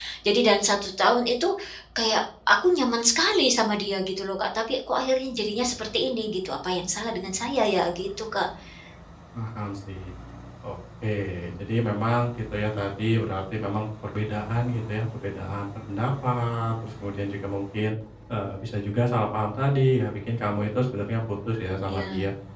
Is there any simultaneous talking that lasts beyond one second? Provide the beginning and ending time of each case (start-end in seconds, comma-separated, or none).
none